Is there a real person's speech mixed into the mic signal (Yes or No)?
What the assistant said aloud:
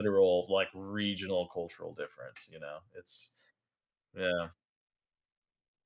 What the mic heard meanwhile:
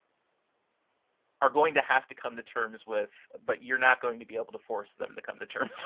Yes